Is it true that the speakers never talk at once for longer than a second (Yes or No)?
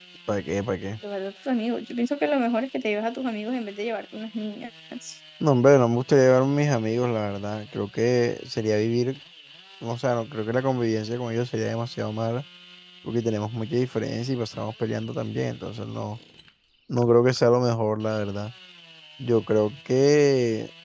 Yes